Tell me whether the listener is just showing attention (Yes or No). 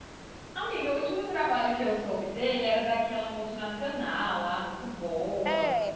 No